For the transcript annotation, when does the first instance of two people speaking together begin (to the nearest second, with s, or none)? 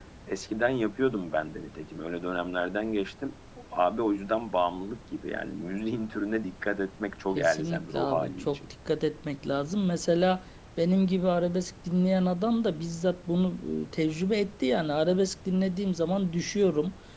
7 s